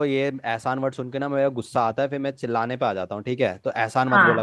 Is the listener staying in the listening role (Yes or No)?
No